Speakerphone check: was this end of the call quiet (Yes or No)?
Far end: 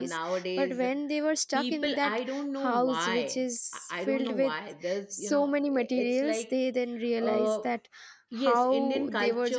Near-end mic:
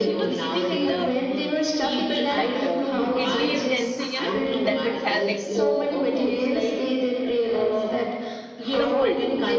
No